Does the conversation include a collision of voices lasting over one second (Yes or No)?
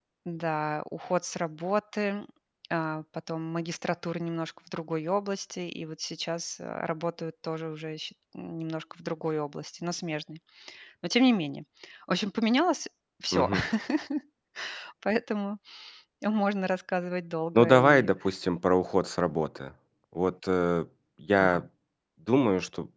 No